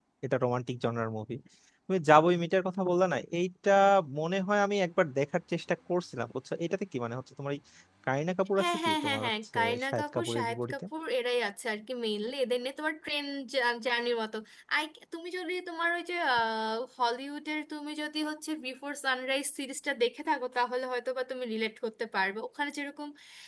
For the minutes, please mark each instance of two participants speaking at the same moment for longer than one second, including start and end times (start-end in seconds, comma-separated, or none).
8.6-10.7